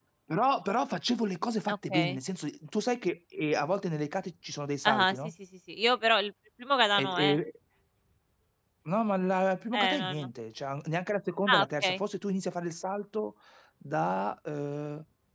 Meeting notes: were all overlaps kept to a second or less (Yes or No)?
Yes